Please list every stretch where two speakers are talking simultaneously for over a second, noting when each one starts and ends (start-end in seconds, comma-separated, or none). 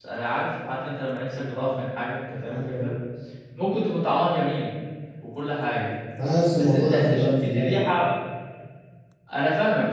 6.6-7.8